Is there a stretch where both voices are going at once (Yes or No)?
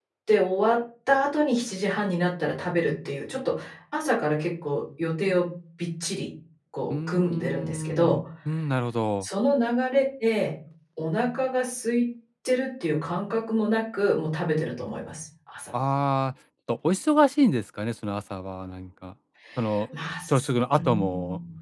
Yes